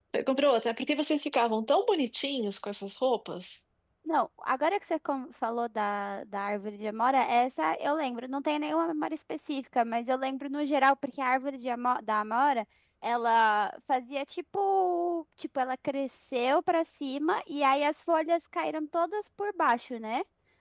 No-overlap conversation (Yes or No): Yes